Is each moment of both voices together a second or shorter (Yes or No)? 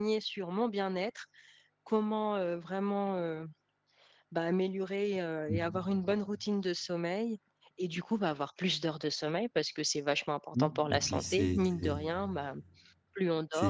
No